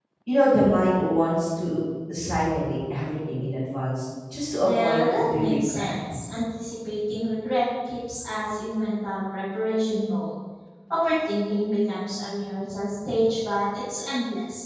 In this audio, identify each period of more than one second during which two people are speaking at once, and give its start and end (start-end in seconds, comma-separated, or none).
4.6-5.9